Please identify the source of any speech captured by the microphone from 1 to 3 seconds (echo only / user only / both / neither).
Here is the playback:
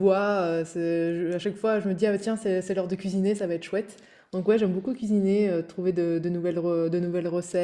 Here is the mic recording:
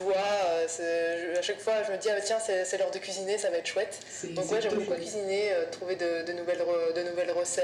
echo only